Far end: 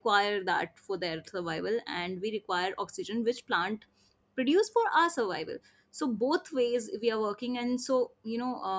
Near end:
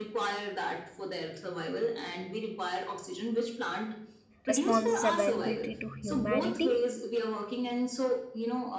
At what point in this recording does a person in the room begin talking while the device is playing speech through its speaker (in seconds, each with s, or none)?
4.5 s